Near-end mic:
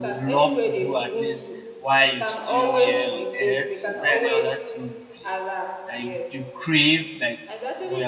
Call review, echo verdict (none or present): present